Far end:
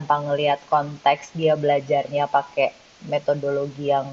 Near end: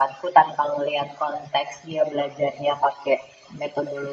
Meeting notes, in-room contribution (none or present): none